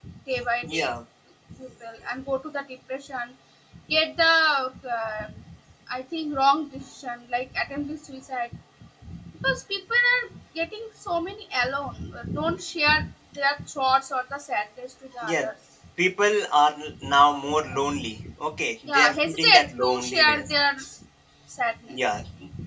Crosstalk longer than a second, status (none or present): present